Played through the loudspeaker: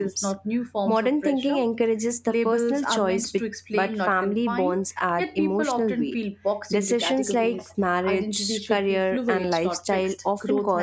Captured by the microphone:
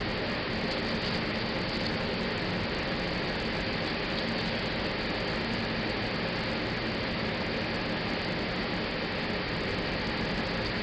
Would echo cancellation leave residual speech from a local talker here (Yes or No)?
No